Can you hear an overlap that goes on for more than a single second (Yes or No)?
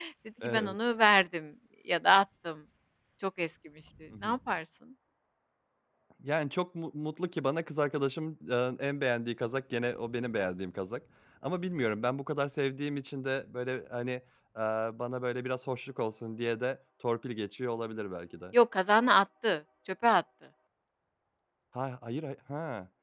No